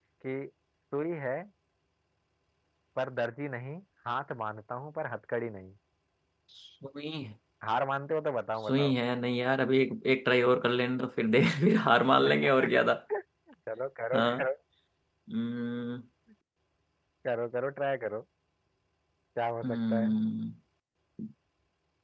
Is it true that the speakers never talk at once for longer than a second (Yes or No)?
Yes